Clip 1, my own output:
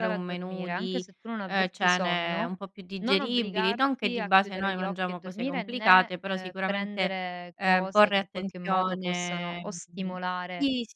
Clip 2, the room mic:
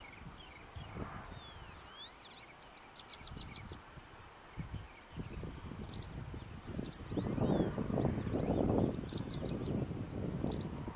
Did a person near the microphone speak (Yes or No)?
No